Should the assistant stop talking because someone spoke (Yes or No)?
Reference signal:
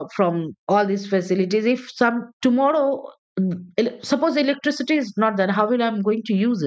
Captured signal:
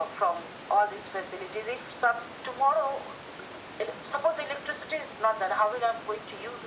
No